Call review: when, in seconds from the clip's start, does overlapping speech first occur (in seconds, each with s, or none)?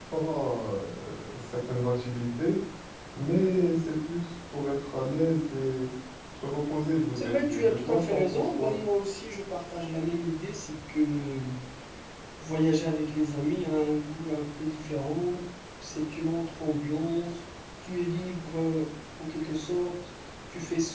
7.2 s